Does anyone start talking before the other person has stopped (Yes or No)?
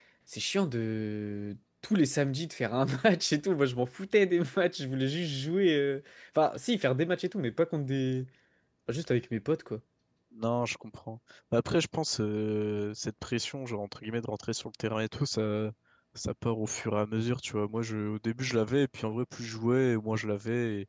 No